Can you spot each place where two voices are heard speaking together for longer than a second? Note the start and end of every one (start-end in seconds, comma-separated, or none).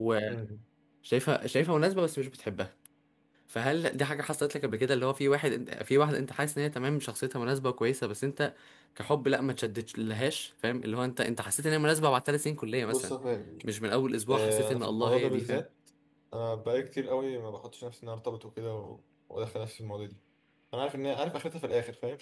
14.3-15.6